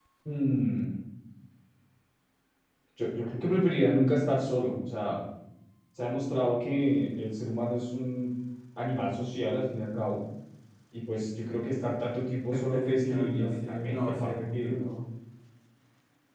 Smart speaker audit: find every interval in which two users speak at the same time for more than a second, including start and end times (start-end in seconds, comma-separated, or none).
12.5-14.7